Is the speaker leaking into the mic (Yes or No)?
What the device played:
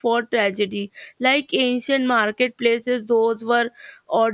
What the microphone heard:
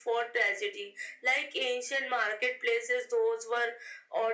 Yes